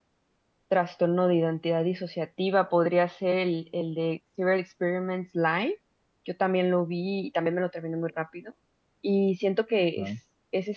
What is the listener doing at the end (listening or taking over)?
listening